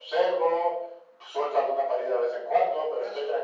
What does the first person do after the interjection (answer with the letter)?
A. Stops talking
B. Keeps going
B